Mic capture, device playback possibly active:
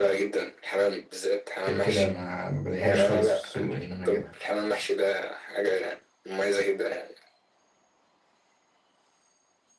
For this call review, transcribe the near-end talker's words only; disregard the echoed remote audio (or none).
غير كده ما ما بلاقيهاش خالص في السوق إن أنا أجيبها